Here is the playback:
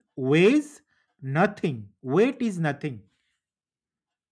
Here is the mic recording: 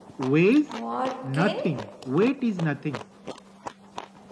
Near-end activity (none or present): present